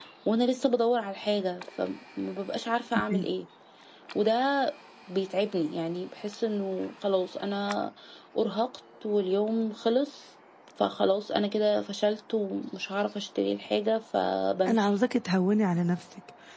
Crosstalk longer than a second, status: none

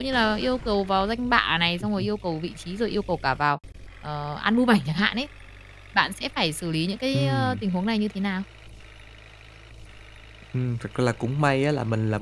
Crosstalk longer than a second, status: none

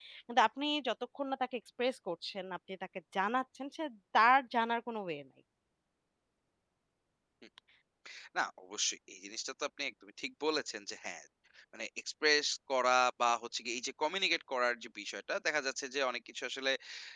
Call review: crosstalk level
none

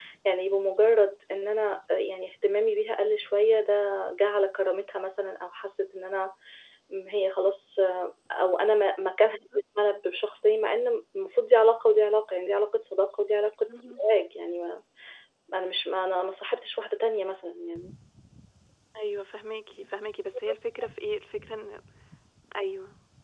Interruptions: none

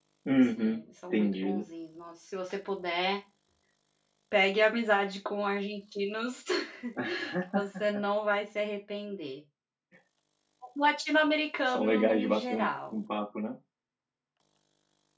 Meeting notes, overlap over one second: present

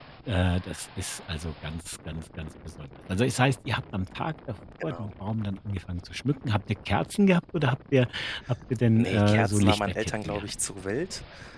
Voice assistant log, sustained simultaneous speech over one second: present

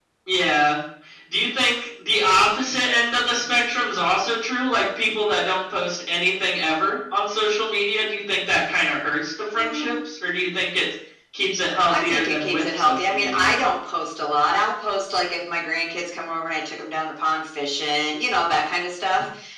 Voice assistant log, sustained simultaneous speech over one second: present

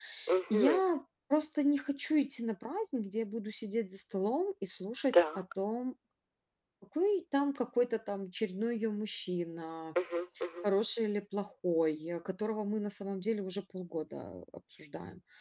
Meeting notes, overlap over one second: none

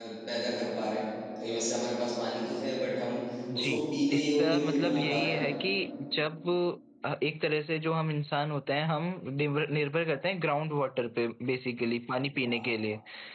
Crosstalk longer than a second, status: present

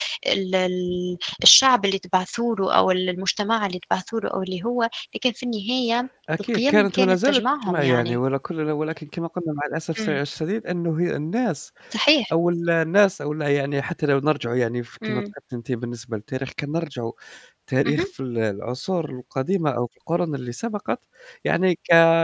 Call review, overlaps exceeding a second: present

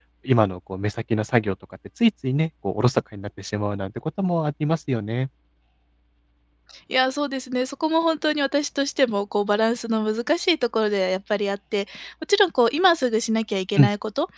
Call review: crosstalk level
none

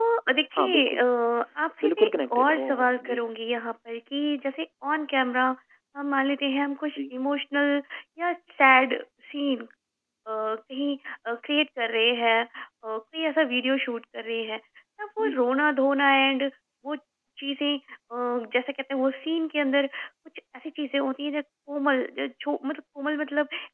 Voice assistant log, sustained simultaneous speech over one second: present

